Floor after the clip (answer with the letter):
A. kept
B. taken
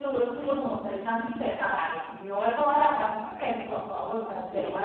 A